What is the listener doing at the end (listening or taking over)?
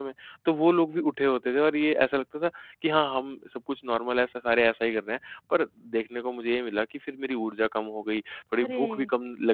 listening